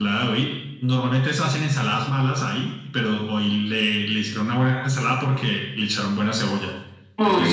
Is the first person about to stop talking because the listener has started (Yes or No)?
No